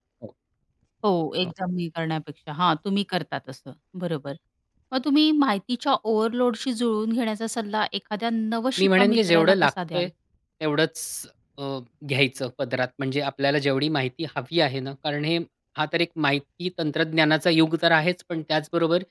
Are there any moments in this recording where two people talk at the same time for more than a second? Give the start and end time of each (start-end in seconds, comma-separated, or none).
8.8-10.1